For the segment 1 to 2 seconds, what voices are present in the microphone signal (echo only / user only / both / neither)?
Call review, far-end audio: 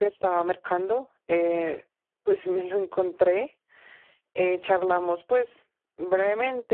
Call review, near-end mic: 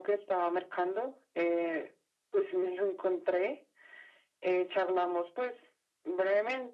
echo only